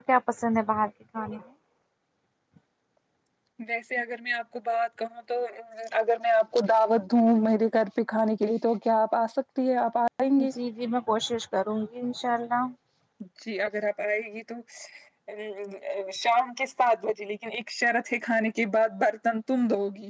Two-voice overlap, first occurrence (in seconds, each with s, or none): none